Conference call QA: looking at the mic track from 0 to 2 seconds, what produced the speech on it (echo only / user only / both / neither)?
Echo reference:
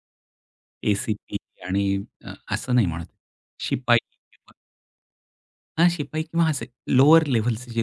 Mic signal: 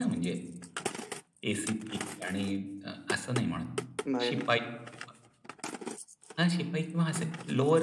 echo only